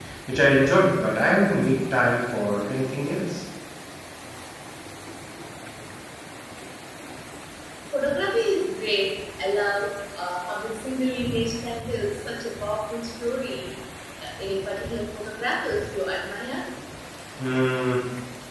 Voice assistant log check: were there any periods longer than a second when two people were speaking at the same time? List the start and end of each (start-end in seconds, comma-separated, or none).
none